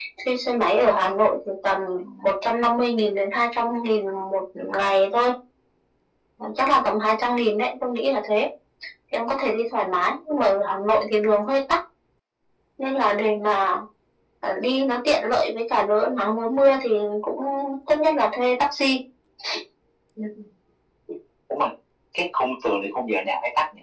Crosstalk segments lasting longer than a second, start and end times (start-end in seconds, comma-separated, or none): none